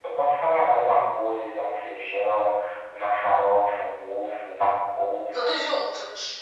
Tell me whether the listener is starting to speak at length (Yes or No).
No